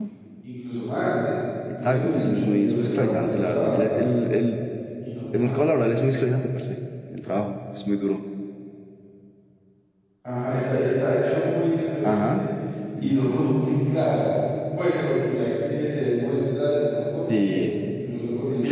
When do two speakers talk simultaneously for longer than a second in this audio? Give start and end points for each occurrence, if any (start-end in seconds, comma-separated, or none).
1.8-3.9